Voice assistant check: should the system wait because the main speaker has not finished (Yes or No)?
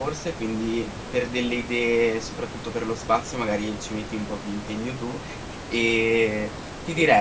Yes